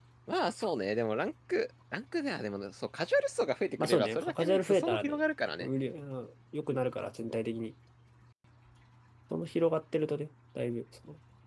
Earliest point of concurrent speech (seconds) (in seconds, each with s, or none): 3.8 s